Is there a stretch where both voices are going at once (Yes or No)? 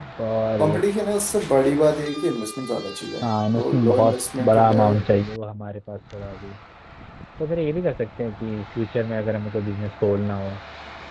Yes